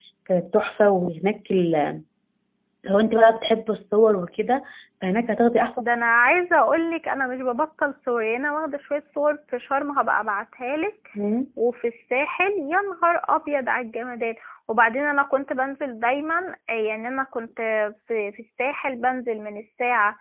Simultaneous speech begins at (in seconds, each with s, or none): none